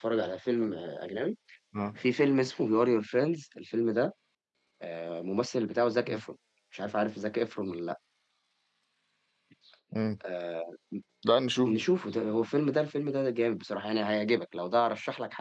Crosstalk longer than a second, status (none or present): none